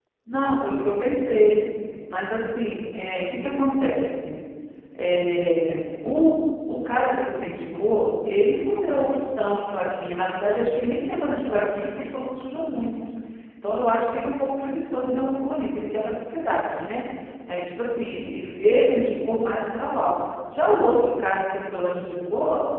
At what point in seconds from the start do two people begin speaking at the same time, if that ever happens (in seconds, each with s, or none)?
none